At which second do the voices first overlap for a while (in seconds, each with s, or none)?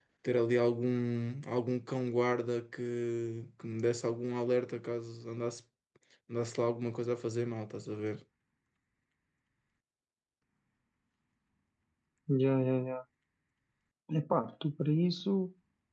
none